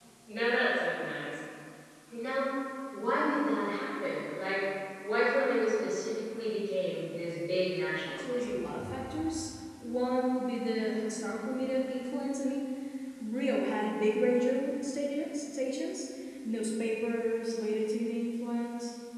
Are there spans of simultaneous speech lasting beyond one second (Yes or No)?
No